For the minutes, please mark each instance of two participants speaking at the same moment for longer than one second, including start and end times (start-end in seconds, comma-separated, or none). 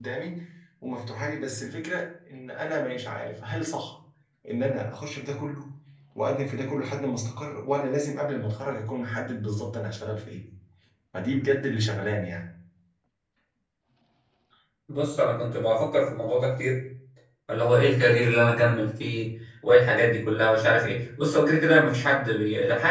none